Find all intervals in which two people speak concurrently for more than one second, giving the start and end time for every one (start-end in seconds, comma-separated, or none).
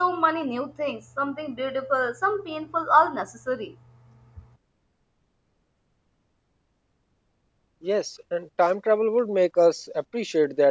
none